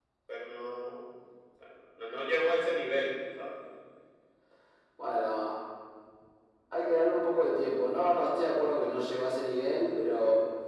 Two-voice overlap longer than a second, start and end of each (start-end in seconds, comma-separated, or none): none